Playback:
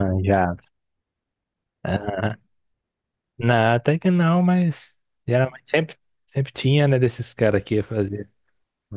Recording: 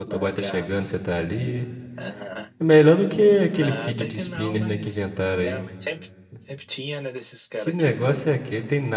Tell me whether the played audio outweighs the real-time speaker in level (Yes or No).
No